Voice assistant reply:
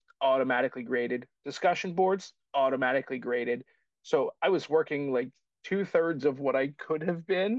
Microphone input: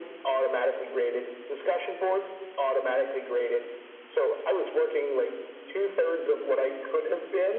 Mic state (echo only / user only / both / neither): echo only